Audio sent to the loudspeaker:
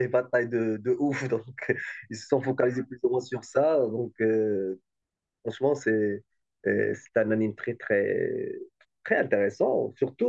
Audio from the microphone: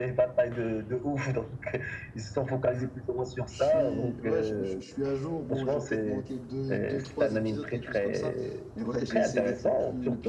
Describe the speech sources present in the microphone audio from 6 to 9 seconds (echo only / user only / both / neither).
both